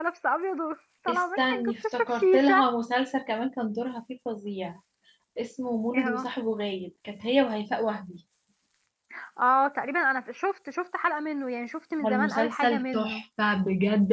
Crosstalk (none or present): present